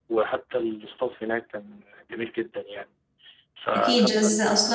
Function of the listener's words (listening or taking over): taking over